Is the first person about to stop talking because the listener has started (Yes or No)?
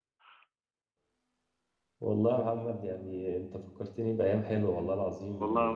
Yes